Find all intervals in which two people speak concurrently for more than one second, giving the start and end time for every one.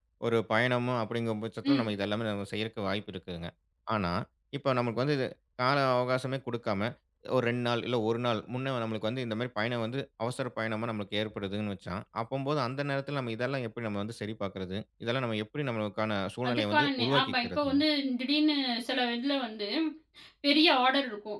16.5-17.8

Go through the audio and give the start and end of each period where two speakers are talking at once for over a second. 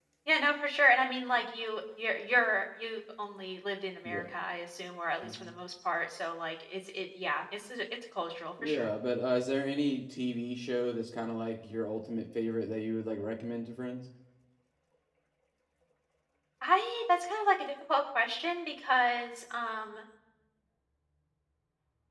none

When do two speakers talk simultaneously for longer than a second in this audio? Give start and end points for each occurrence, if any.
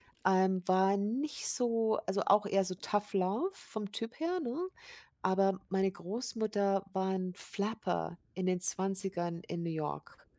none

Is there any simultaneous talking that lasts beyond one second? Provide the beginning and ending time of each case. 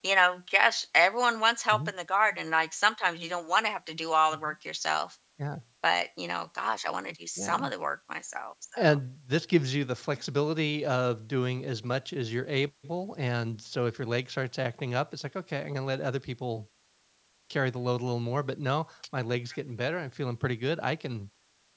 none

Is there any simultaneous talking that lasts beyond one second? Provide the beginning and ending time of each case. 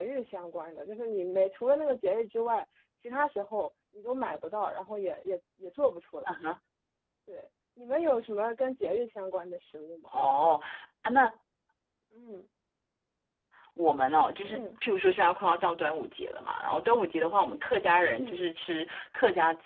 none

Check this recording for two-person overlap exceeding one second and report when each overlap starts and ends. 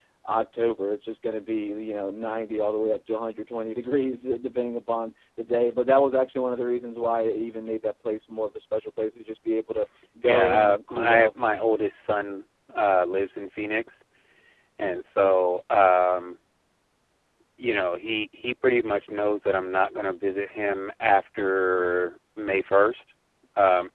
10.2-11.6

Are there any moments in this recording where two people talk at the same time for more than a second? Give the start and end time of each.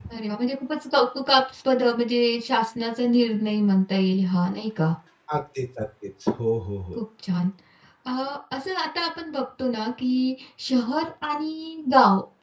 none

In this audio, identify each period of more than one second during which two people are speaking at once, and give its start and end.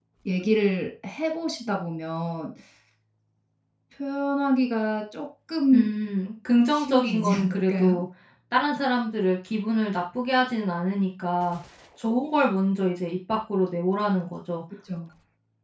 6.7-8.0

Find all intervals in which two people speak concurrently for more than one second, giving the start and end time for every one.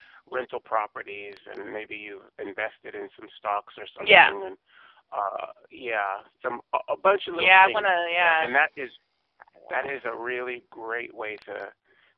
7.3-8.5

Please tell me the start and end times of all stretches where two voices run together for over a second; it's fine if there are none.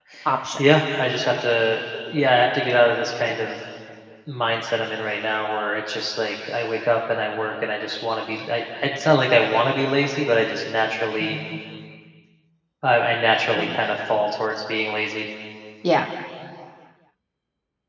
none

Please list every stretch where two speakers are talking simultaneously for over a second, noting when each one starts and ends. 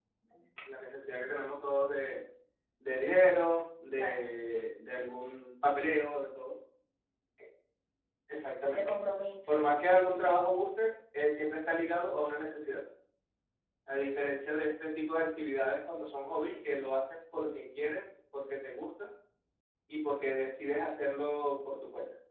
9.5-10.7

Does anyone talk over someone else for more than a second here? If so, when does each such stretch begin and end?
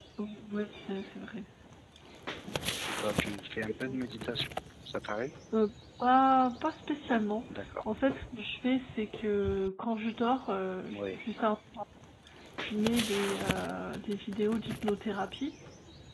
none

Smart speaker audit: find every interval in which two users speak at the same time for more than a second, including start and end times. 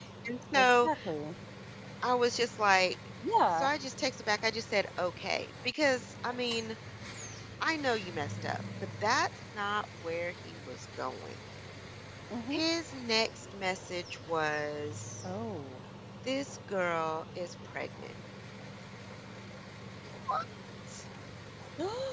none

